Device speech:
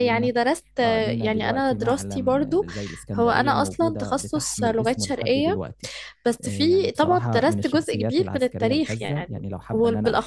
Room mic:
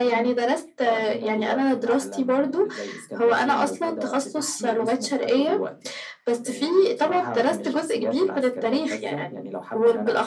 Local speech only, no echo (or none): none